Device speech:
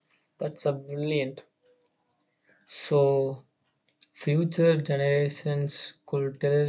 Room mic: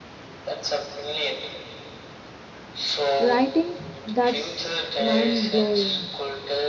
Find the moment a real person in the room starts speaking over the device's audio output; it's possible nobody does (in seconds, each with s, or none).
3.2 s